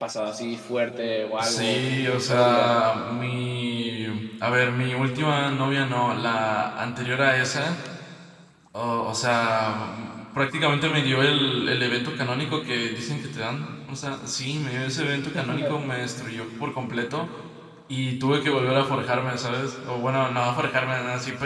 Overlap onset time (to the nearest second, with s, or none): 1 s